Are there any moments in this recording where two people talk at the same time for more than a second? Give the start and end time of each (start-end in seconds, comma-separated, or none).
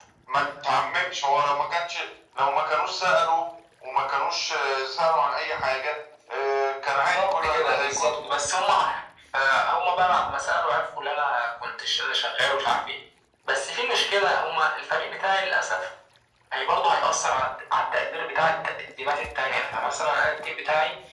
6.9-8.2